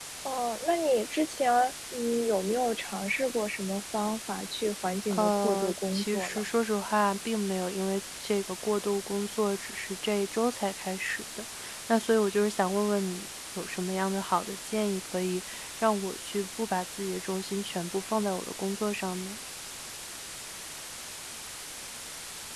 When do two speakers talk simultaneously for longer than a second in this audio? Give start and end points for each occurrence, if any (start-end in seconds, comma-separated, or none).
5.2-6.4